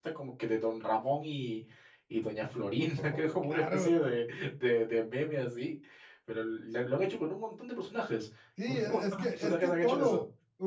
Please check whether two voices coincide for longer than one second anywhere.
Yes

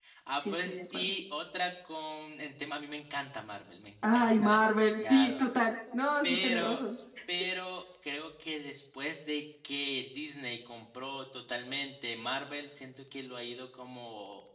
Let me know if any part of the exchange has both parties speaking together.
Yes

